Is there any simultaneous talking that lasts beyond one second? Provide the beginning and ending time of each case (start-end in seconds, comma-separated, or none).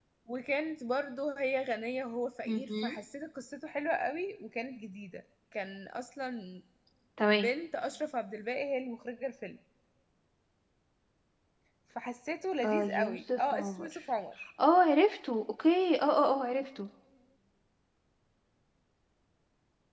12.6-14.0